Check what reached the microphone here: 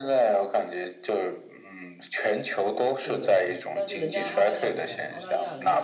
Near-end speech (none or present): present